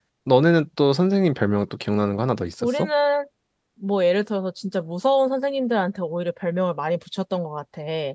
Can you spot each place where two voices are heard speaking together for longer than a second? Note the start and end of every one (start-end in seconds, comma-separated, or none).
none